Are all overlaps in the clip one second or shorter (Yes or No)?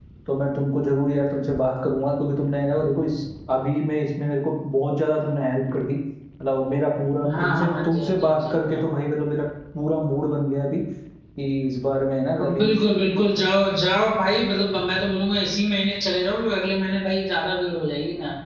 No